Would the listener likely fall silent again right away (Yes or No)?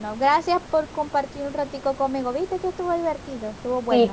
No